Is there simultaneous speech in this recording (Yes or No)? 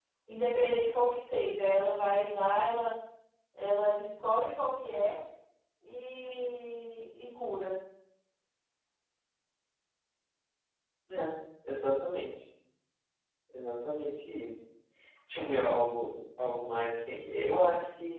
No